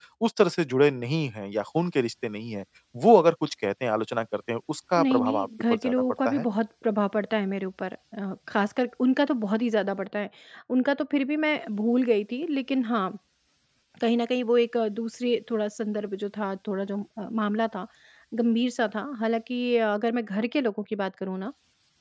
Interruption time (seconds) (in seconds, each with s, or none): 5.0 s